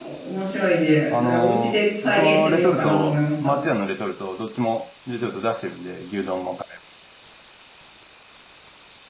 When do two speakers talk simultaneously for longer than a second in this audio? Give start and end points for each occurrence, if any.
1.1-3.5

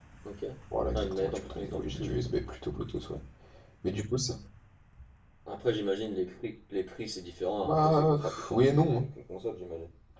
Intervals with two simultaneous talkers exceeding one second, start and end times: 0.9-2.3, 7.6-9.0

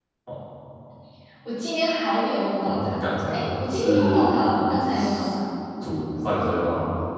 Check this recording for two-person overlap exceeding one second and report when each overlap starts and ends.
2.6-4.4

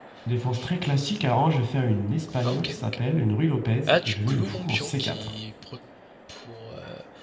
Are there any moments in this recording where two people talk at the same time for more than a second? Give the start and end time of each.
3.9-5.3

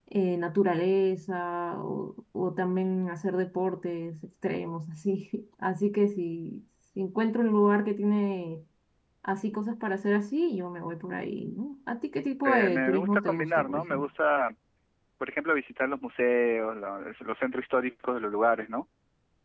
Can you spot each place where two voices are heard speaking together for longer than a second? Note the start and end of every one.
12.4-14.1

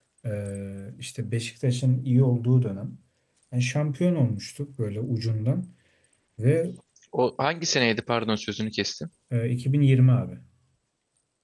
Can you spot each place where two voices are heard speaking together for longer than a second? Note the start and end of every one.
none

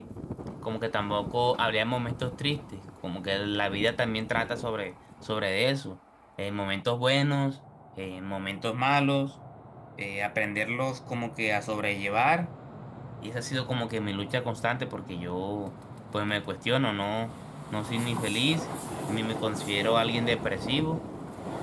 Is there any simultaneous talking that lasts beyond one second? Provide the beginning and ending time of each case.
none

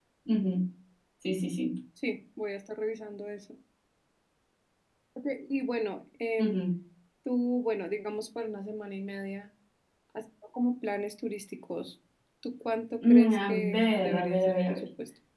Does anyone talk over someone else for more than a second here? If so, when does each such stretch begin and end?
13.1-14.8

